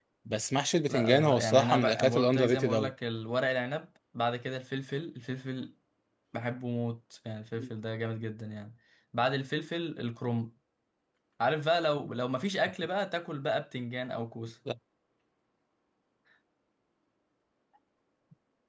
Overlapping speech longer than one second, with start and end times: 0.9-2.9

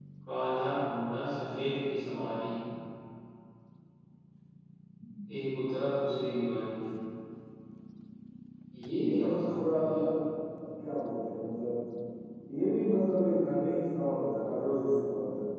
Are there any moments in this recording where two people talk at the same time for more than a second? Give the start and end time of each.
9.0-10.2

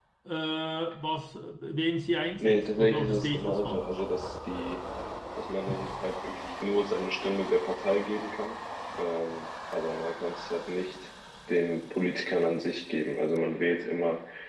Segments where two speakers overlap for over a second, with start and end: 2.4-3.9

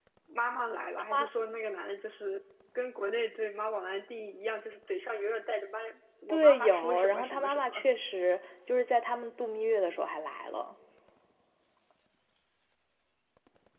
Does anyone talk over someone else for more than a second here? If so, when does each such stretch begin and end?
6.3-7.9

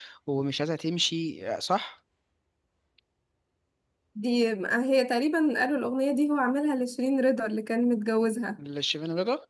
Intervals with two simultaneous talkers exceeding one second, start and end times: none

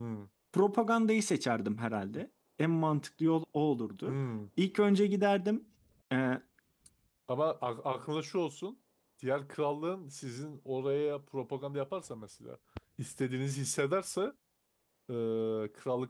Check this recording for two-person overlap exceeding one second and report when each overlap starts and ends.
none

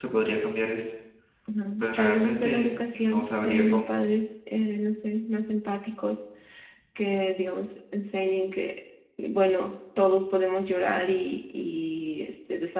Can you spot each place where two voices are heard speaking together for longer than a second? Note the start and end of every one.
1.8-3.9

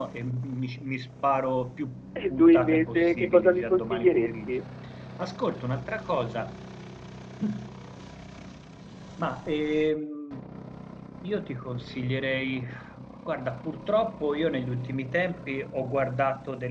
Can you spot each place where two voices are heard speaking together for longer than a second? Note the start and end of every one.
2.3-4.6

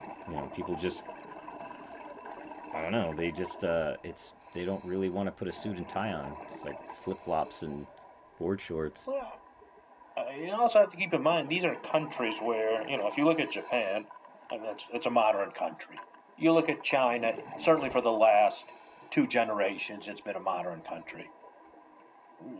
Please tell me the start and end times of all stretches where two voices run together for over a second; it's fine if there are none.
none

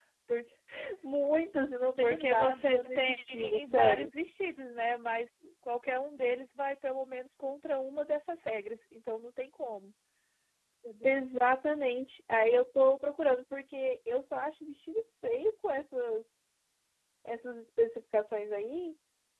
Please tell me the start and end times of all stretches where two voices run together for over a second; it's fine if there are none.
2.0-4.1

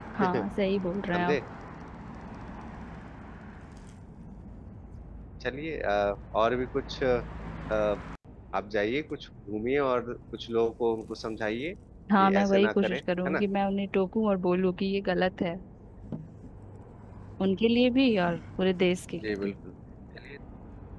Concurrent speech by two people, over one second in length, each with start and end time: 12.2-13.4

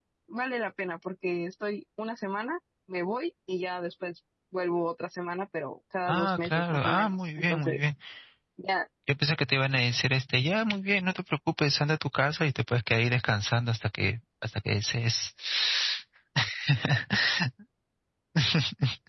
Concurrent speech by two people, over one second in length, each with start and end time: 6.1-7.9

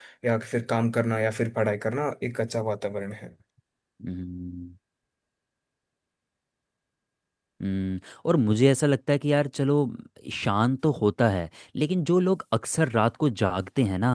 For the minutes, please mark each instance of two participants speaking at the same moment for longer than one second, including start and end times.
none

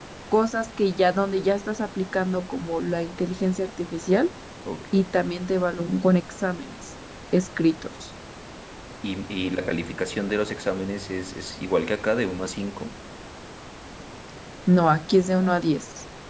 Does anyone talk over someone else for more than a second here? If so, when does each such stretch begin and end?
none

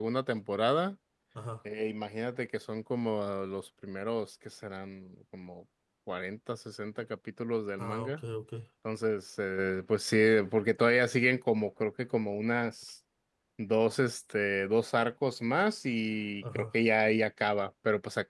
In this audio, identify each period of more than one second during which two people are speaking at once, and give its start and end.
none

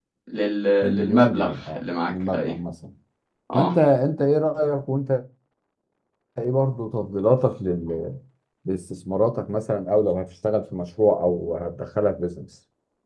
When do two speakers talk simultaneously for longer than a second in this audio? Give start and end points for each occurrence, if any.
0.8-2.5

